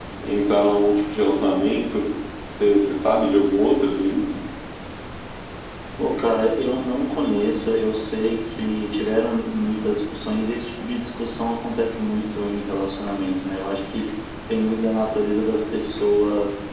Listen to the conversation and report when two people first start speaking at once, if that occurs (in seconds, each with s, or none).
none